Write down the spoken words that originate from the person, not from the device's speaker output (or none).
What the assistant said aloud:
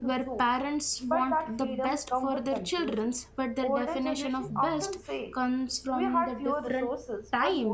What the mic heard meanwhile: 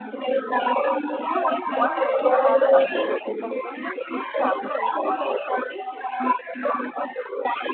you reach one goal, another appears. Contentment feels temporary, almost suspicious,